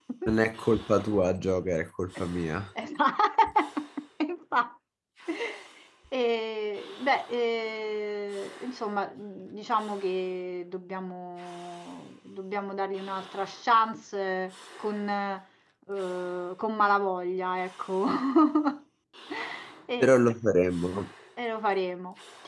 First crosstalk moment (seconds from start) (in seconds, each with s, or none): none